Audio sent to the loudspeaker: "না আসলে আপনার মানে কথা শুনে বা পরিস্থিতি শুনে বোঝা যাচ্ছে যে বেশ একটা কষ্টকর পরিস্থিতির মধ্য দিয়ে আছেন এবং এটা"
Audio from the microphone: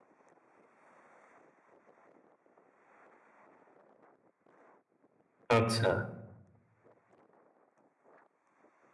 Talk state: user only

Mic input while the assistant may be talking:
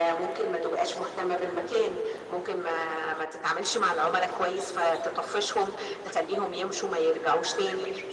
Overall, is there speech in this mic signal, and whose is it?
echo only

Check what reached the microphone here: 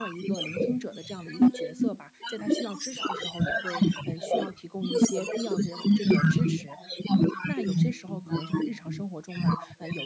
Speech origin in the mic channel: both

